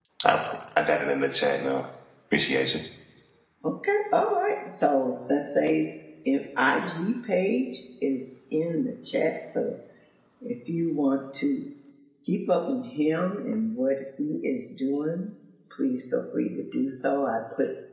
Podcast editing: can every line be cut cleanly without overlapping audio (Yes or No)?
Yes